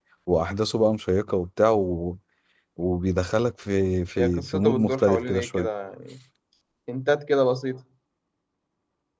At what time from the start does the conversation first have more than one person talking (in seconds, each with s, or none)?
4.2 s